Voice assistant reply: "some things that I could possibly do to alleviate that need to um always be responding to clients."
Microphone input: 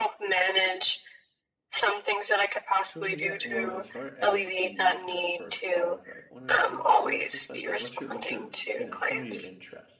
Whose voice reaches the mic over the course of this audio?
both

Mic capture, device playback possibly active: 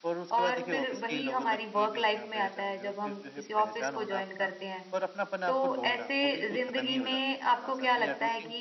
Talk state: both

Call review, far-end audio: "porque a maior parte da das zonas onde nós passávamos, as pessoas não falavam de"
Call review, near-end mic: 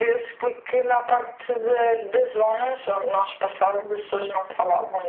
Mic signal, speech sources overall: echo only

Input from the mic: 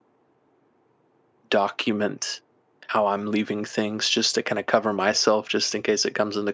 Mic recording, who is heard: user only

